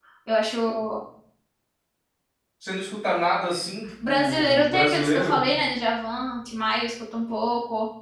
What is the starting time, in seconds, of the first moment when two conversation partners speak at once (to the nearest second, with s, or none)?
4 s